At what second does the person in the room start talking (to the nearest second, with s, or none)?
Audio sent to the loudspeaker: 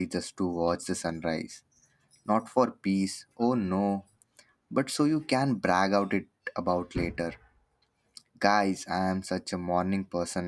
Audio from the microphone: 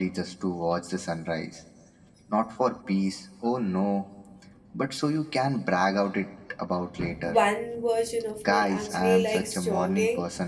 7 s